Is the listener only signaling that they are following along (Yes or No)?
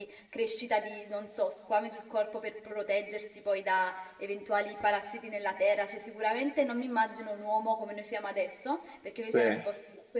Yes